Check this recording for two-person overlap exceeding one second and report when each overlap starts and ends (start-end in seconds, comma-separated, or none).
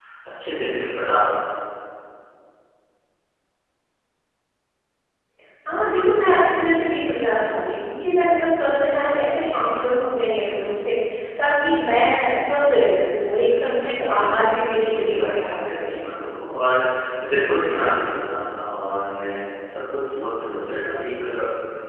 14.2-15.8